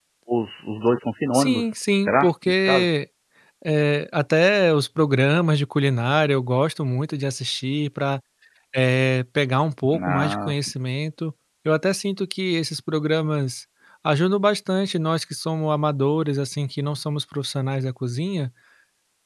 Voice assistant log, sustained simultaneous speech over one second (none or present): present